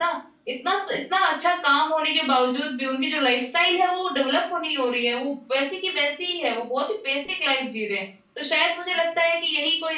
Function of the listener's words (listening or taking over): listening